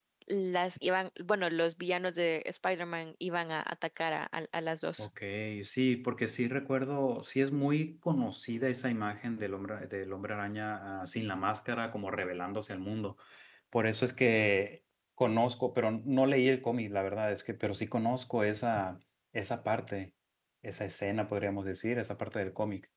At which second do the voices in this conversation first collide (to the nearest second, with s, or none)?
none